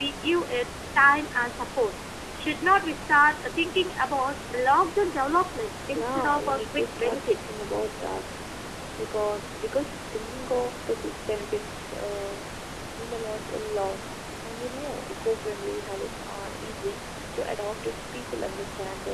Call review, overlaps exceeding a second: present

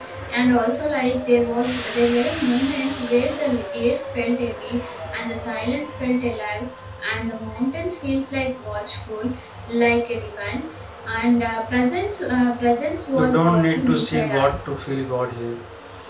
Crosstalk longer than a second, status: present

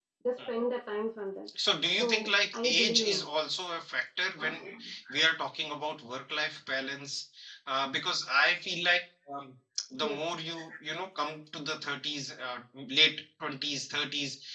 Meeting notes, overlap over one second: present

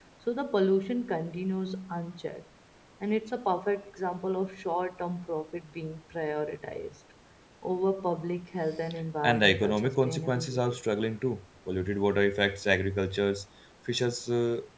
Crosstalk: present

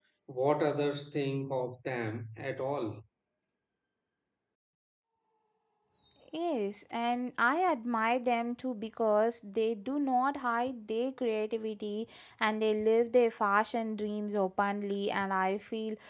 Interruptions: none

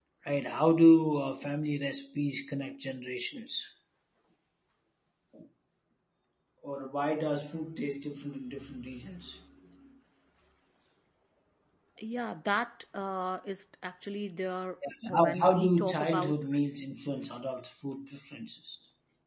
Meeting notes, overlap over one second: present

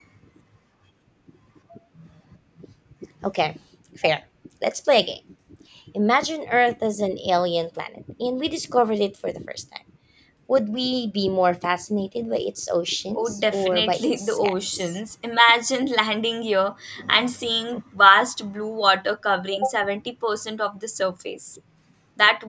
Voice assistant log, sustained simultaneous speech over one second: present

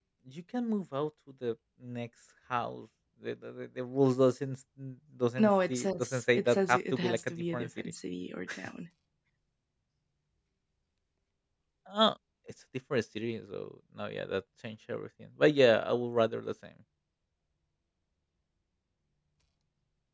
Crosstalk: present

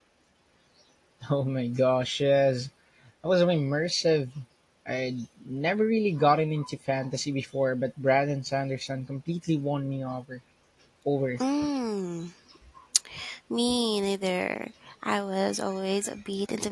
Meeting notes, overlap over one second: none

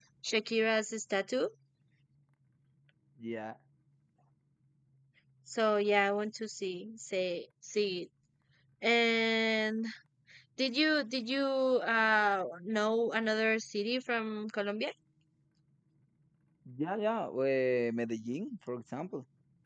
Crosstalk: none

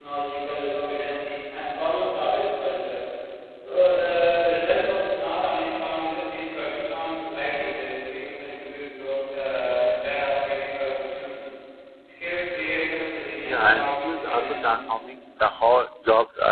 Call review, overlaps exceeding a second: present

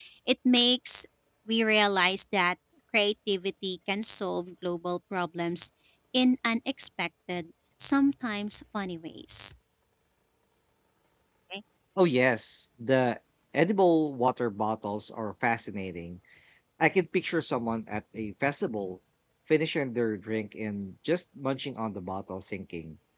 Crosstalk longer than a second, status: none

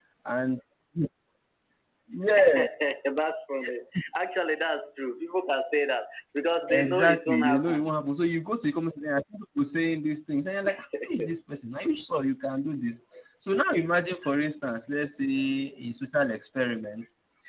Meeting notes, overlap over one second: present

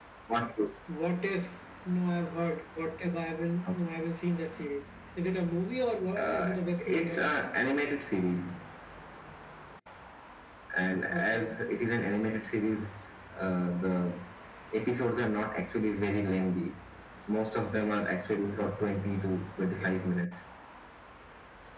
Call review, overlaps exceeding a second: present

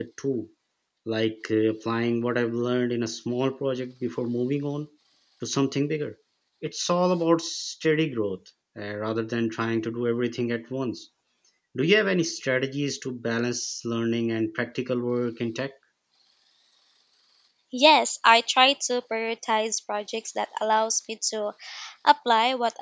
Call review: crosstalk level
none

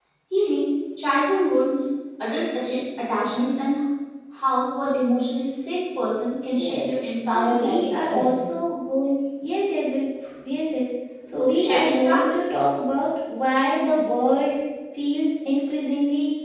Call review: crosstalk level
present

